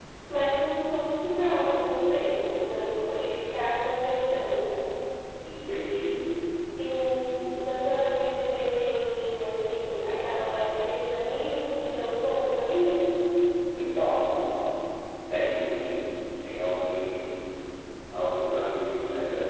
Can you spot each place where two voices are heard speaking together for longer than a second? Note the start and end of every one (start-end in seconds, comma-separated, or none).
none